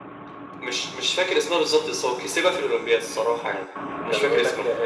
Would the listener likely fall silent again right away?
No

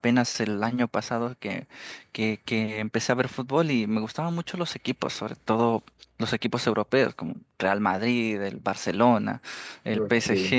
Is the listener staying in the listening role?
Yes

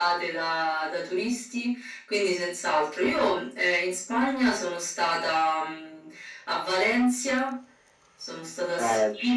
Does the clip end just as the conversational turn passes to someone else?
Yes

